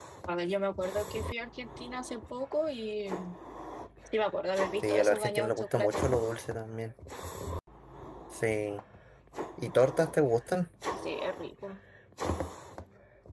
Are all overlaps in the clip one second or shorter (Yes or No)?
No